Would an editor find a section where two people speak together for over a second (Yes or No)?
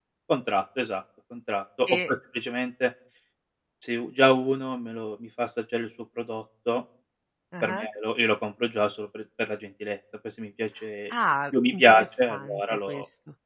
Yes